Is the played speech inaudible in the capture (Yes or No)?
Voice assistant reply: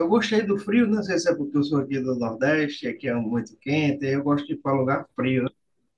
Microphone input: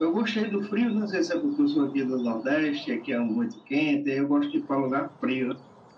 No